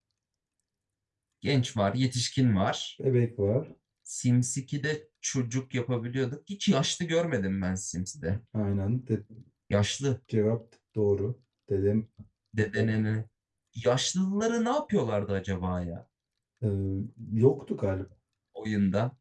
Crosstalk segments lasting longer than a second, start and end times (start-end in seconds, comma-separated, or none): none